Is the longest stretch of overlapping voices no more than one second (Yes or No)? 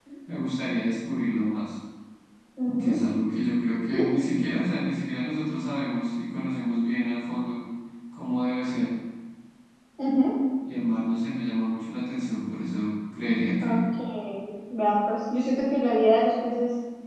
Yes